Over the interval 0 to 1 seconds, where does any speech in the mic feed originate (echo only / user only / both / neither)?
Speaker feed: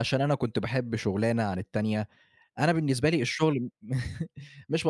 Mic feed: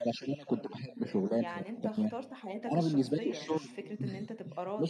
echo only